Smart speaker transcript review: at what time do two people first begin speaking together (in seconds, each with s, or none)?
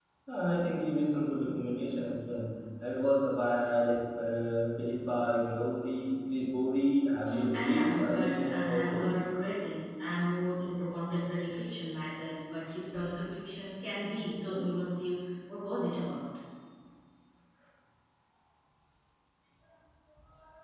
7.2 s